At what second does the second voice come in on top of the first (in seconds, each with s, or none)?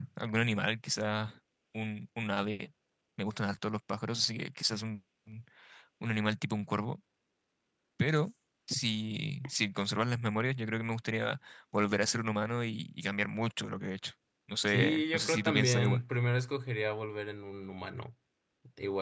14.7 s